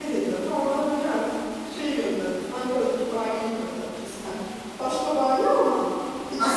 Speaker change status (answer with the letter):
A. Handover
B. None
A